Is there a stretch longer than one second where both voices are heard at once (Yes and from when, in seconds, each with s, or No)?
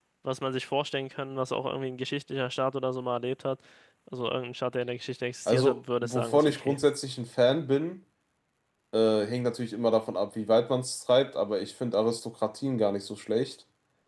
Yes, from 5.5 s